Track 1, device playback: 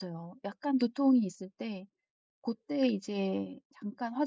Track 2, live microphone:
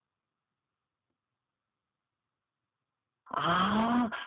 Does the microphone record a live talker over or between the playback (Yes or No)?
Yes